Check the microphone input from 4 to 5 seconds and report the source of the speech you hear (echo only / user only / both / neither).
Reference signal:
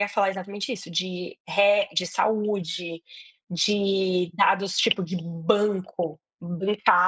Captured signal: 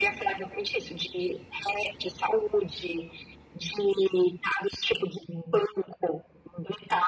echo only